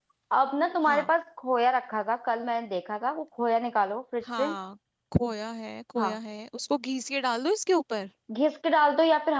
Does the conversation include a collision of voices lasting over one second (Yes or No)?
No